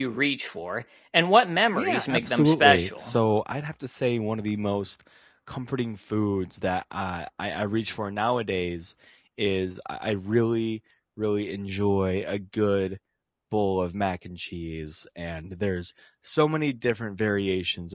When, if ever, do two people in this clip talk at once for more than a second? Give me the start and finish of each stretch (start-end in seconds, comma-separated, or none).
1.7-3.1